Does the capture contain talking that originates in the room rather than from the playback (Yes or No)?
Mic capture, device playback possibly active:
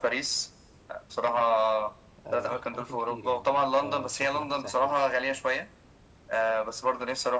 Yes